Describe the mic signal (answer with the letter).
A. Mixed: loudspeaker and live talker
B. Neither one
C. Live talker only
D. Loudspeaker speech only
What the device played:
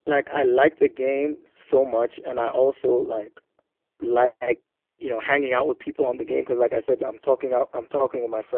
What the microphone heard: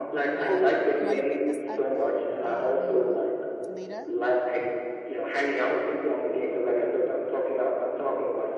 A